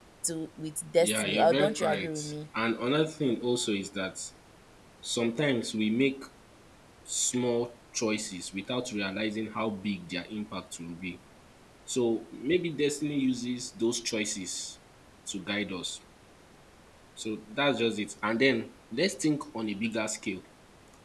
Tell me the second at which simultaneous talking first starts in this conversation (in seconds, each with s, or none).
1.0 s